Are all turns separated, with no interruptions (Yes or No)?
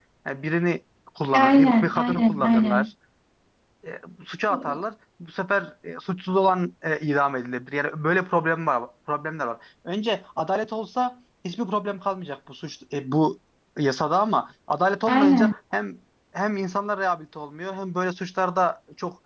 No